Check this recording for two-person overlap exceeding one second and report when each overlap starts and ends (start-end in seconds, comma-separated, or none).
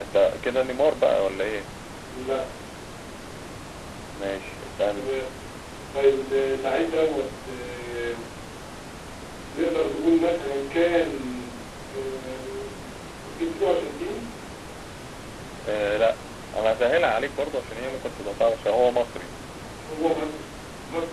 none